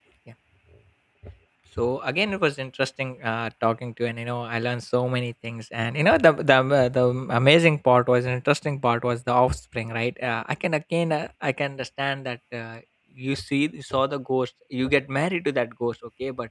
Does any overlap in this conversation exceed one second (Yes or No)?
No